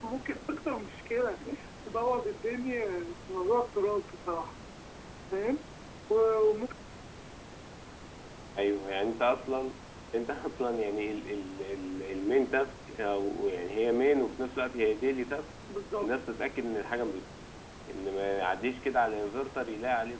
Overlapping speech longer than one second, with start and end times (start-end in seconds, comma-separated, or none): none